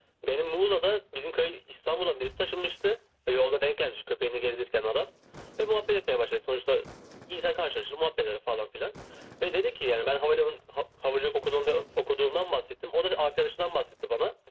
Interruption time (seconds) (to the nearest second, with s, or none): none